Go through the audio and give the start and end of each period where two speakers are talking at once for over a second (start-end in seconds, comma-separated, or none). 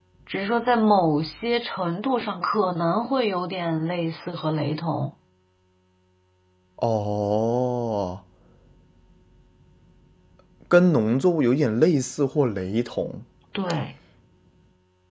none